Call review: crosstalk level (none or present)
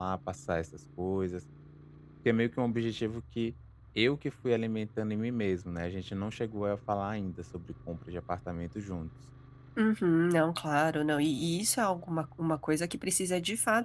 none